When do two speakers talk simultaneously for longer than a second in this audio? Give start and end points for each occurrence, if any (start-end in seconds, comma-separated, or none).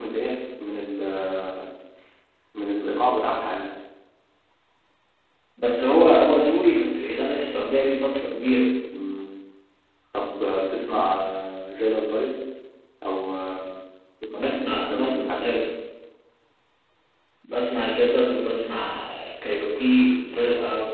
14.4-15.6